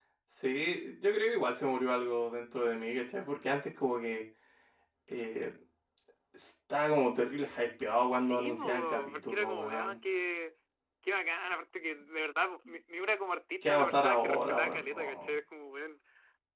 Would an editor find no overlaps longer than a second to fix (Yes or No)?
No